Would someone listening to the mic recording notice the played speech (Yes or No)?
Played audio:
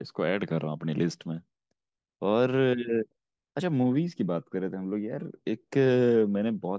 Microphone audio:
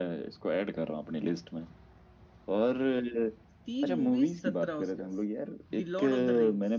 Yes